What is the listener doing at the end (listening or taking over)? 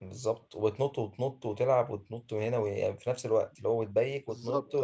listening